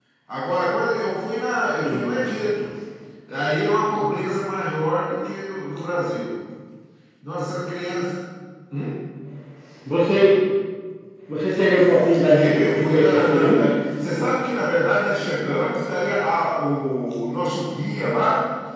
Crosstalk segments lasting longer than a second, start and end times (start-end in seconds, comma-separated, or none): 12.2-13.7